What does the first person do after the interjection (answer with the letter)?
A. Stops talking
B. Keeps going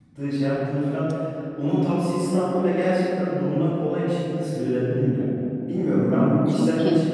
B